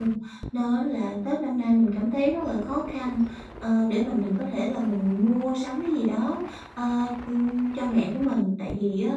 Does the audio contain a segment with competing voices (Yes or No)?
No